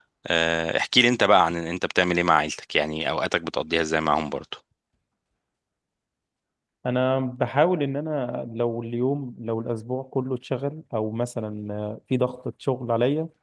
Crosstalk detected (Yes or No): No